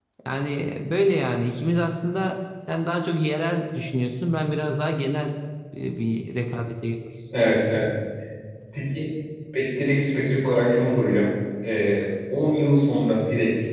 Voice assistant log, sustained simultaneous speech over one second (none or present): none